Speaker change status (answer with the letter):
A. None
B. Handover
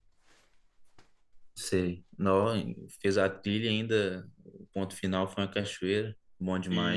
B